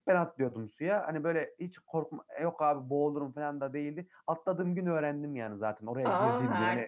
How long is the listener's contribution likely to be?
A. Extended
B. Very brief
B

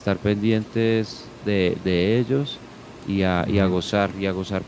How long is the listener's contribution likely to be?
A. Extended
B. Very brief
B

